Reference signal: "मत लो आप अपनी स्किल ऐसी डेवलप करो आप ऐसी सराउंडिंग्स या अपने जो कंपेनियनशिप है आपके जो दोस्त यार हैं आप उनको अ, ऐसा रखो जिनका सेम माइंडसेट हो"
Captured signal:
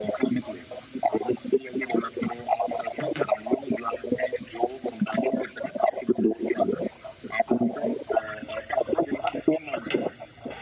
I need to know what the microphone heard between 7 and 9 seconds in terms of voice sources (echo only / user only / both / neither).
echo only